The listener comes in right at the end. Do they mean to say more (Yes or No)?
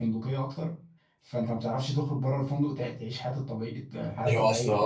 Yes